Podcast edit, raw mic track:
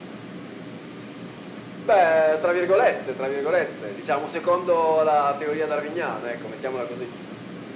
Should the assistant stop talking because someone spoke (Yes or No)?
No